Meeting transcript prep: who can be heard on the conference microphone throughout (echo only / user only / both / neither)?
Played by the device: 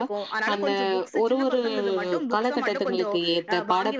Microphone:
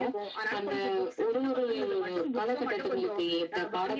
echo only